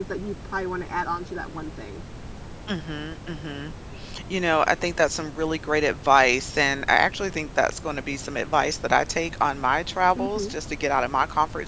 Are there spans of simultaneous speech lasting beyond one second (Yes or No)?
No